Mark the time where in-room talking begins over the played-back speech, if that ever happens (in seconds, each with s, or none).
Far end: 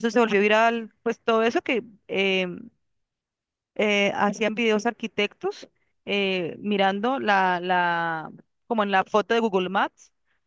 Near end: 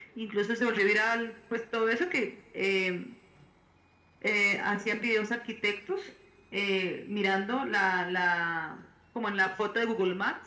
none